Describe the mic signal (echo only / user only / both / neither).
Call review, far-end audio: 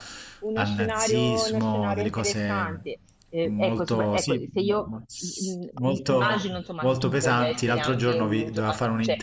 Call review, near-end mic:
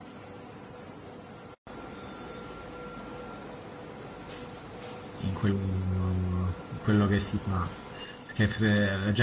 user only